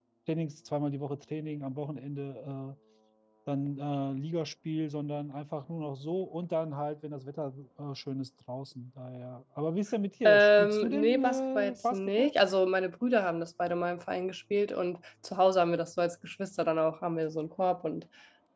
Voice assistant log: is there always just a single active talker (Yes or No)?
No